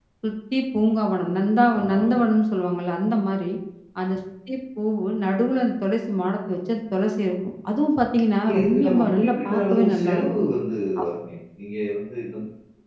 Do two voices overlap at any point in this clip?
Yes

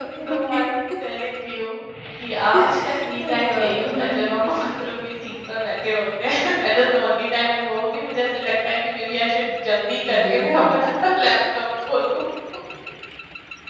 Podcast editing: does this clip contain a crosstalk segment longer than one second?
Yes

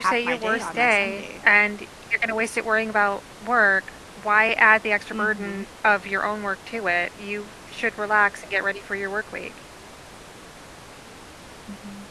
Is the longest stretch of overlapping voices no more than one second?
No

